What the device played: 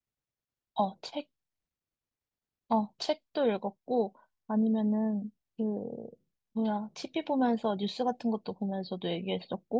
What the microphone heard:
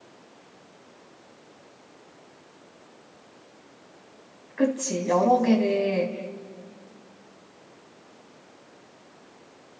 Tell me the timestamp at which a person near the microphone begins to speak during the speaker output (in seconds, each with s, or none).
4.5 s